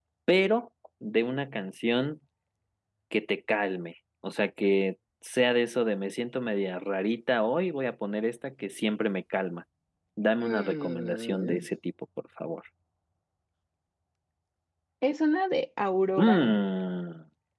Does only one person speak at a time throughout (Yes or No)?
No